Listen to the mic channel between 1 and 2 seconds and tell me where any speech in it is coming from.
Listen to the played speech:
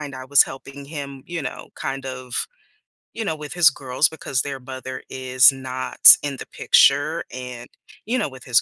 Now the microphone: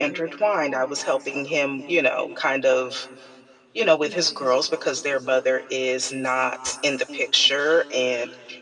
echo only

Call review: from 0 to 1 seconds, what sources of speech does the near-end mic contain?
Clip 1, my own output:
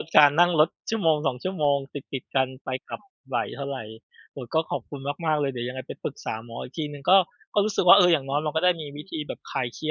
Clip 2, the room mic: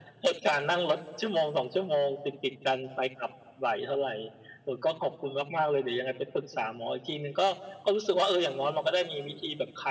echo only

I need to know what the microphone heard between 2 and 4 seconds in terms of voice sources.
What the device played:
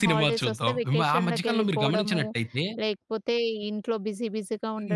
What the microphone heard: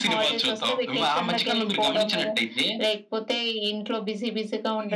echo only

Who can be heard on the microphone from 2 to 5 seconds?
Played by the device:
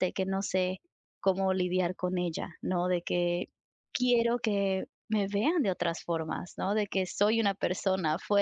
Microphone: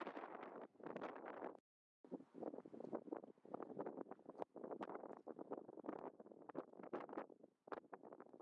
neither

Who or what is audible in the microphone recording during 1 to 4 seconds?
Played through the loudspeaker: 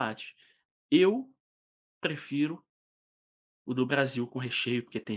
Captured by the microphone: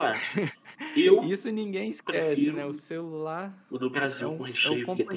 both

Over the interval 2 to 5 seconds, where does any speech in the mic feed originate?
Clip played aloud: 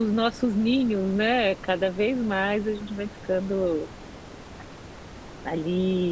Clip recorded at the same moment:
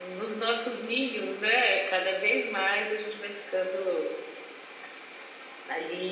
echo only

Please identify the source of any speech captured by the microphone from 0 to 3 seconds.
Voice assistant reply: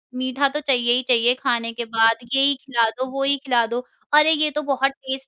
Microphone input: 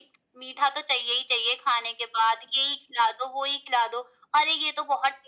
echo only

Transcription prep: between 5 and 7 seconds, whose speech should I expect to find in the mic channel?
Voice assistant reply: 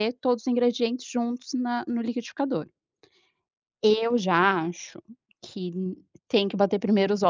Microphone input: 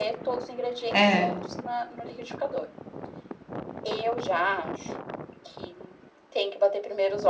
echo only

